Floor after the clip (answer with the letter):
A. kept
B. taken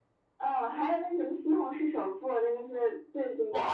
B